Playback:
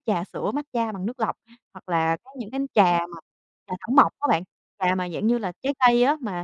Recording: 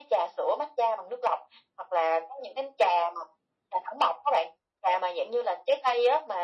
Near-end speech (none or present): none